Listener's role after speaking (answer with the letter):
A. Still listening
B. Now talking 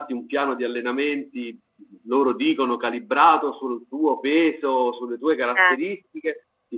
A